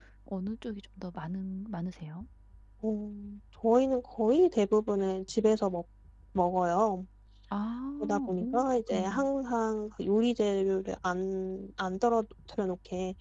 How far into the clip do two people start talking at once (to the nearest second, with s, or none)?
8 s